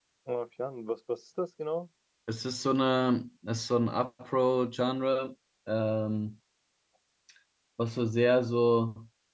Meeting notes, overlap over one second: none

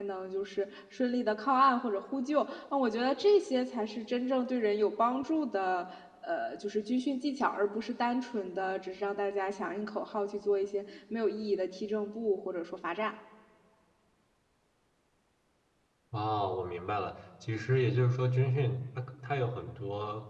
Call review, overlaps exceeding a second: none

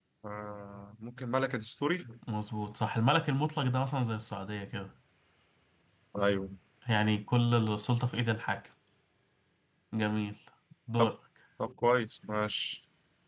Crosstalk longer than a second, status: none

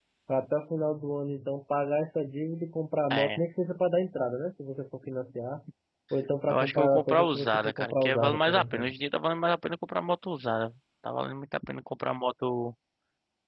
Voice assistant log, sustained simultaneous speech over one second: present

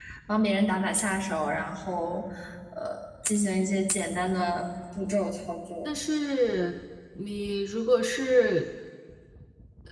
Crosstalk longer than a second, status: none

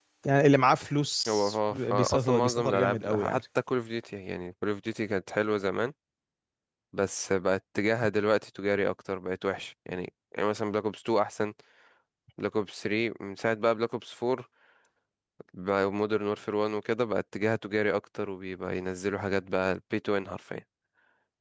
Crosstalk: present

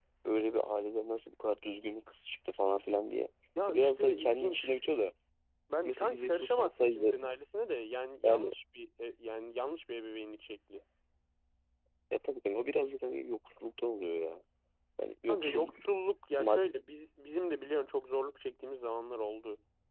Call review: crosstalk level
present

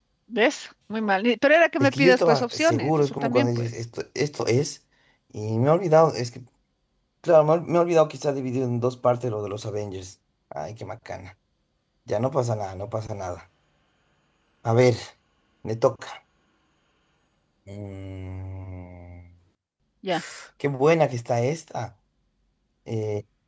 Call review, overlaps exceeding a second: present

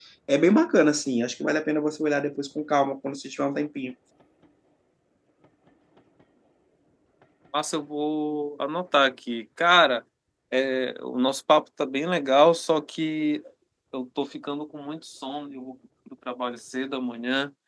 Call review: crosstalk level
none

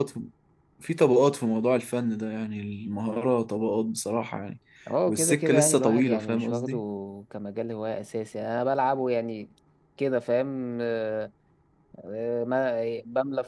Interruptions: present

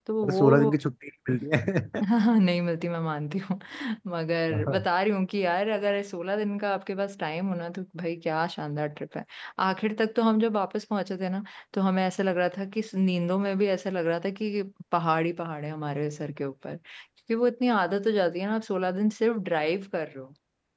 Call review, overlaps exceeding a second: none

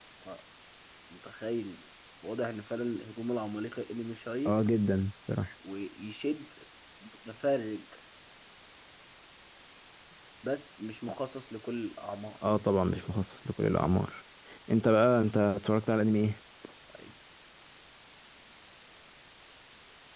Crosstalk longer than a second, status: none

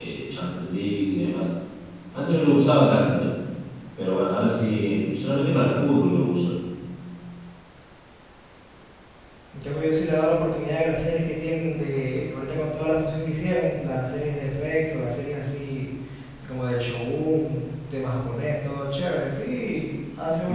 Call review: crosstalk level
none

